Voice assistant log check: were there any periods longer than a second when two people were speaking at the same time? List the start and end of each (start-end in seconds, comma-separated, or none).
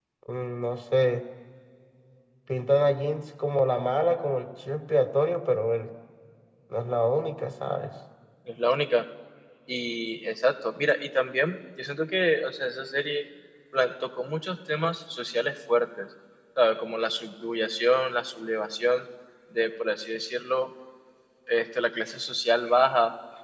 none